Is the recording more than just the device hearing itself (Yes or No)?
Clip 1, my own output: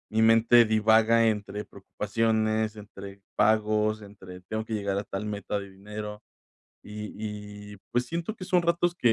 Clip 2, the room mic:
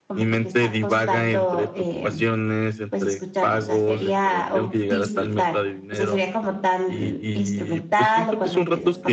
Yes